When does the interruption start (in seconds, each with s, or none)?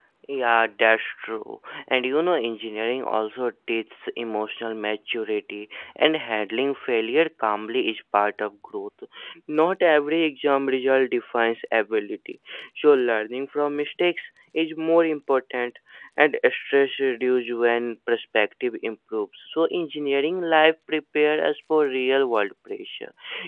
none